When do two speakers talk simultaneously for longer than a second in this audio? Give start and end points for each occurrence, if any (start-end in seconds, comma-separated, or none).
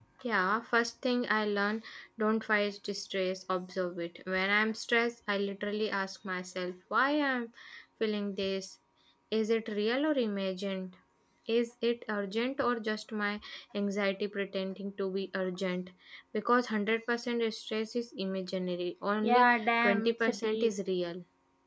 19.2-20.7